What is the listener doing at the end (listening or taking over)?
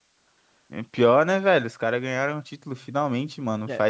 listening